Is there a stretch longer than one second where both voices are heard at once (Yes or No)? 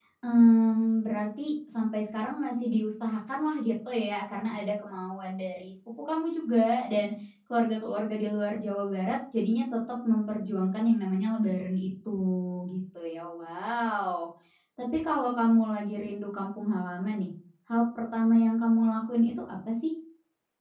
No